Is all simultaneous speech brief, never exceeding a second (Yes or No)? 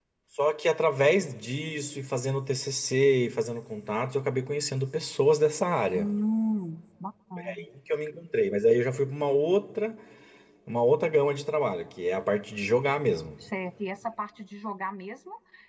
Yes